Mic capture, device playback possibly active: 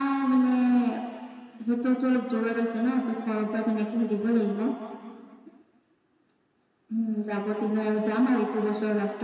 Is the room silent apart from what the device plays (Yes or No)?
Yes